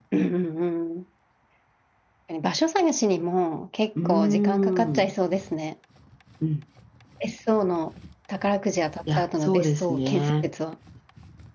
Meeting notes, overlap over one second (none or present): present